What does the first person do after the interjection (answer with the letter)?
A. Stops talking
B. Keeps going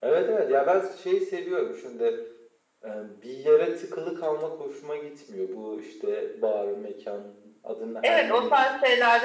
A